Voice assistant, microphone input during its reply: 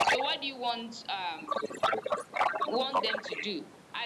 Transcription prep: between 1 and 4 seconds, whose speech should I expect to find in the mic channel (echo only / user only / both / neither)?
both